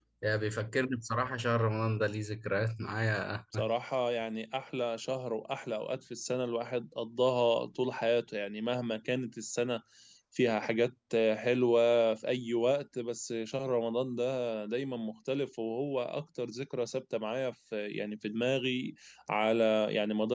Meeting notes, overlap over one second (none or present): none